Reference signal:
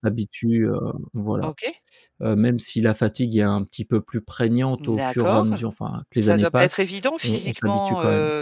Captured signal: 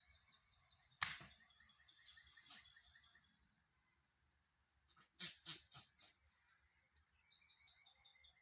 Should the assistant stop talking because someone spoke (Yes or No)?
No